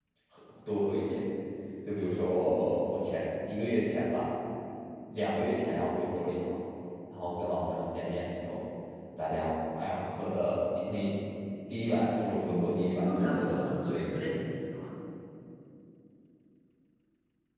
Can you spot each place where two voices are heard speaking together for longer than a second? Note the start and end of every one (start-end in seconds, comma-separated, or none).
12.5-14.3